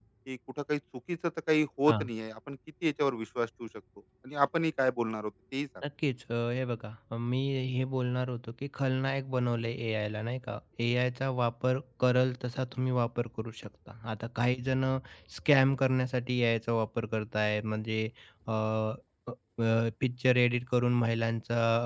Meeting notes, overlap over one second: none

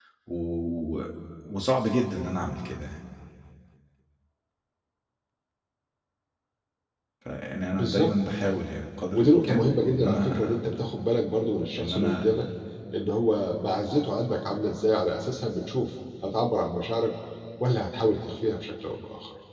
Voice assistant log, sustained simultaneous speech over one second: present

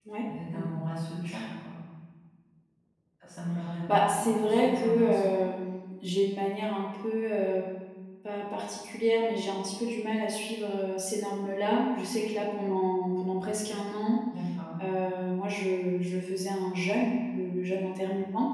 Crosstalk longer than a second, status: present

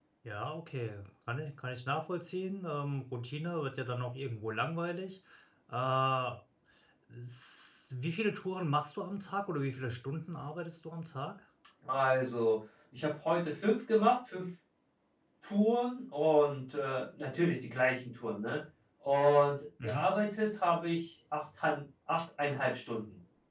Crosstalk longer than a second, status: none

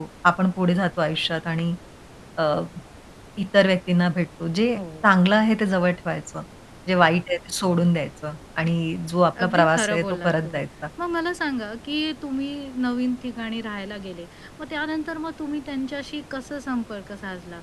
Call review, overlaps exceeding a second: present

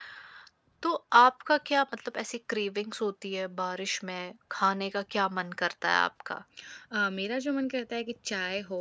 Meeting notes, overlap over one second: none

